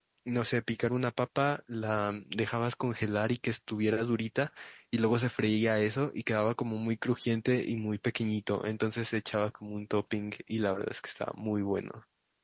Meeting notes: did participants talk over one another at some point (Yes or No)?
No